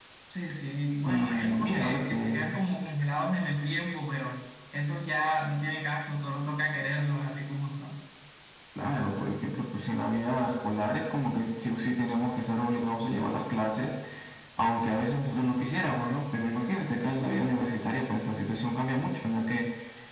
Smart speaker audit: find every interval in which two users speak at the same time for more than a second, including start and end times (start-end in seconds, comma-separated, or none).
1.1-2.5